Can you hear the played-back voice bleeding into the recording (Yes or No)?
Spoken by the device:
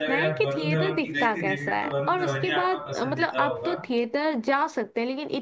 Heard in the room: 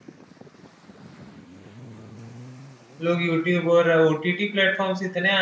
No